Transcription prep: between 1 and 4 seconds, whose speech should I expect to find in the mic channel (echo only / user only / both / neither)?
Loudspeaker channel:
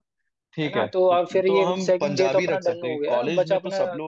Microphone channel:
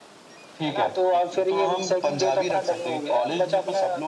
echo only